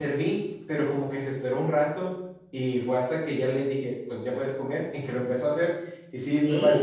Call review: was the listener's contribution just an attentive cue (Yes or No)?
Yes